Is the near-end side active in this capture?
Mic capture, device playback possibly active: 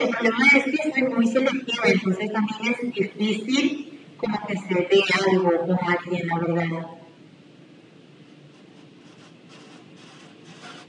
No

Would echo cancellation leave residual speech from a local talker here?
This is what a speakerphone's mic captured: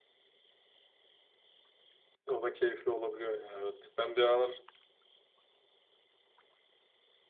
Yes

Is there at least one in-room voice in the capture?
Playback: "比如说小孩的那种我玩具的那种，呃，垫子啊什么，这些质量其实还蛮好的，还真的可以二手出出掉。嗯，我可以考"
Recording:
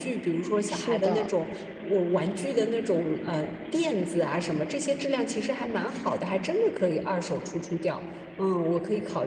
Yes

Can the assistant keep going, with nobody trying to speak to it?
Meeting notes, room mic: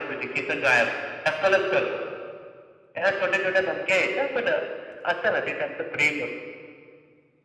Yes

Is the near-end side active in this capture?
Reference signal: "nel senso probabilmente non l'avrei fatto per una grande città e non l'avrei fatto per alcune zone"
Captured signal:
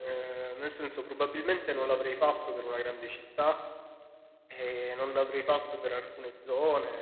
No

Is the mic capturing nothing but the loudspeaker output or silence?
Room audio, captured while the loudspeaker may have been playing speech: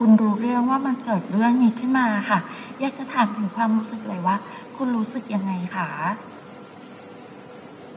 Yes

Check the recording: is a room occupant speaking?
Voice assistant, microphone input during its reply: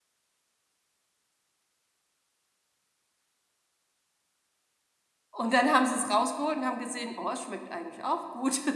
Yes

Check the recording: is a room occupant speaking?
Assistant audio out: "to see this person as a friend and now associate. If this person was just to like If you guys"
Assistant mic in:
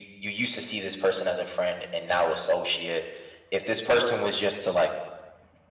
No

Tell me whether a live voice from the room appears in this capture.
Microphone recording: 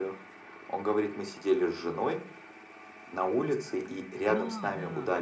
Yes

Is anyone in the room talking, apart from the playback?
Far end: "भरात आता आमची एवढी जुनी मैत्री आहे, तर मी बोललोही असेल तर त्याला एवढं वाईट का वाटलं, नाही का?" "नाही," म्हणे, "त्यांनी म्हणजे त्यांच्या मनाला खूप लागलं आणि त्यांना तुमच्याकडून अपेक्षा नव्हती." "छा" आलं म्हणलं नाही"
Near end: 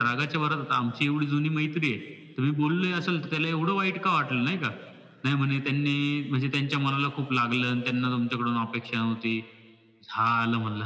No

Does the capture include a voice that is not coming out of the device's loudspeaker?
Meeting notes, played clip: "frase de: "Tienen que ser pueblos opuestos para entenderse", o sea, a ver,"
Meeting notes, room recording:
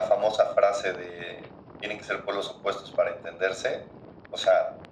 No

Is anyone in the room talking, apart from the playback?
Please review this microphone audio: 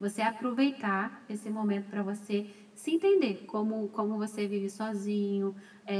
No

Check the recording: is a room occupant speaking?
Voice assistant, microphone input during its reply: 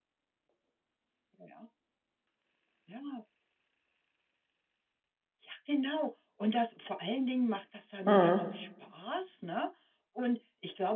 Yes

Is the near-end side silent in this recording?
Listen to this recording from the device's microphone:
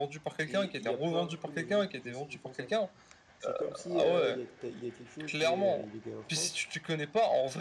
No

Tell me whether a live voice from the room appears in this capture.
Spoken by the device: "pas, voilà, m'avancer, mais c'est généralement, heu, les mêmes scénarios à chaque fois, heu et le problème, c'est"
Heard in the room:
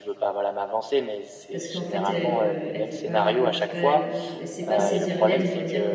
Yes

